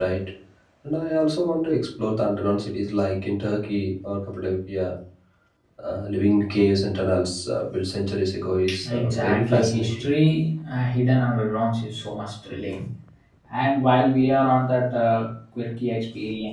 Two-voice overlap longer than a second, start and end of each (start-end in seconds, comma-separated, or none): 8.9-10.1